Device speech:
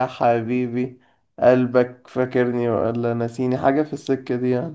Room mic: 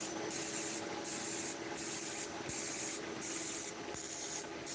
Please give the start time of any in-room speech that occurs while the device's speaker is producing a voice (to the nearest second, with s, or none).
none